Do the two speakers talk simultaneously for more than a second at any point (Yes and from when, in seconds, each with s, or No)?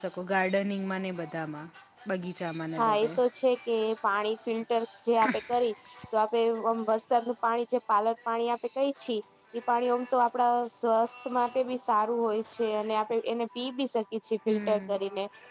No